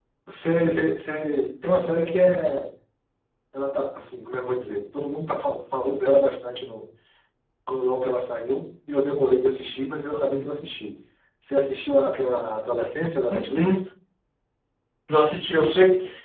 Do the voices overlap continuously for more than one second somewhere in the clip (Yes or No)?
No